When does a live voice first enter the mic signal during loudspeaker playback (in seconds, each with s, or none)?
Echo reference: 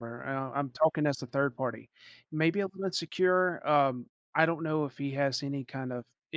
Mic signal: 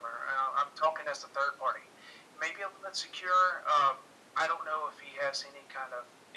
none